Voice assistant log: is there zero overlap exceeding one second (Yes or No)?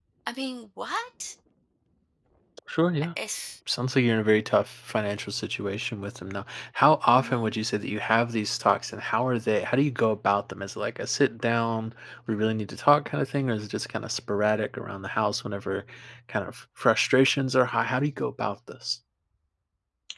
Yes